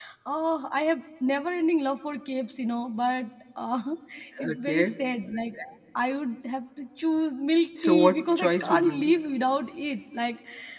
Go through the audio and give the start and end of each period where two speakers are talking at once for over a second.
7.8-9.2

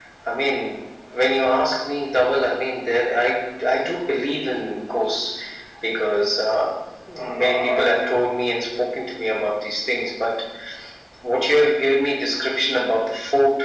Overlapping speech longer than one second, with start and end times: none

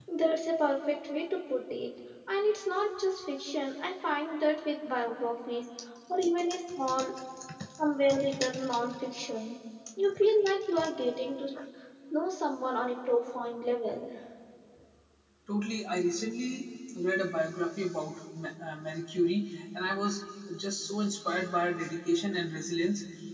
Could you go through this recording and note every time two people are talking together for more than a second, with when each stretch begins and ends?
none

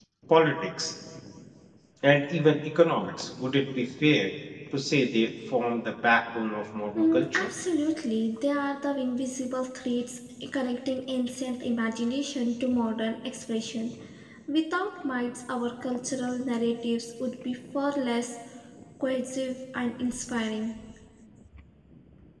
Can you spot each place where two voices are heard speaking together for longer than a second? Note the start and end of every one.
none

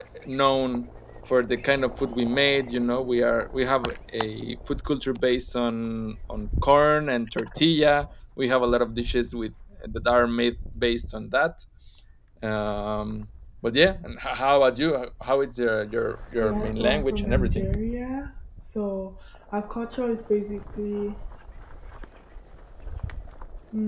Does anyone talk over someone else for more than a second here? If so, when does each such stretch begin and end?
16.4-17.7

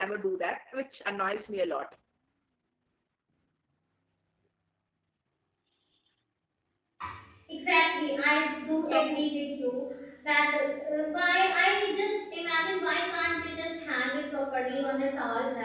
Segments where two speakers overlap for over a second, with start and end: none

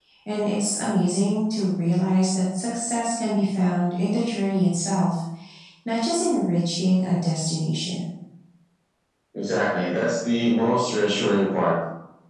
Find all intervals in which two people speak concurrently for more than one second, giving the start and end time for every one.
none

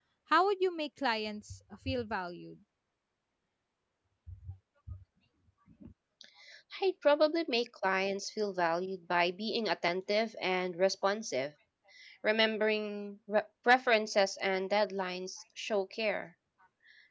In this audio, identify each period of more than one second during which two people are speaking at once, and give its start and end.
none

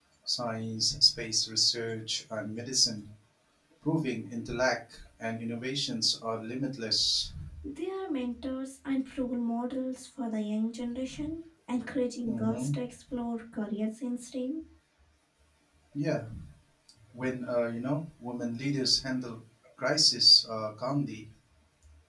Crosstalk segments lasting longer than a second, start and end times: none

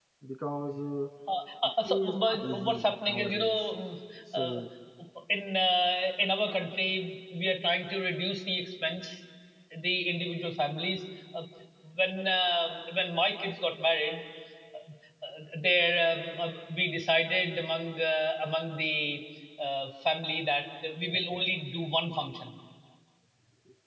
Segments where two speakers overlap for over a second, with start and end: 1.9-3.6

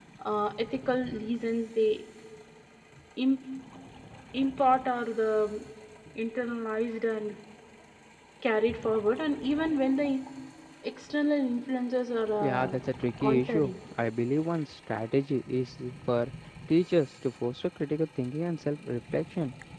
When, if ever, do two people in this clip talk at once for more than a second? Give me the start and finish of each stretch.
none

